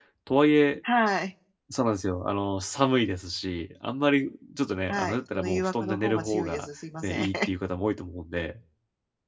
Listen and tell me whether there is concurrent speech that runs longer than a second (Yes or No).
Yes